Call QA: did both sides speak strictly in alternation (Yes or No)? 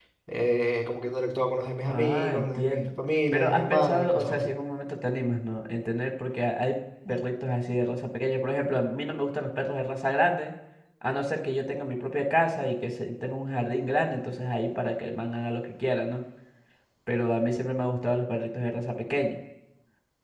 No